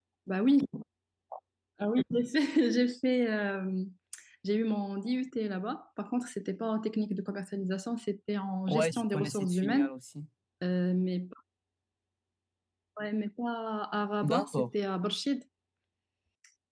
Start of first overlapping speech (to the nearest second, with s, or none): 9 s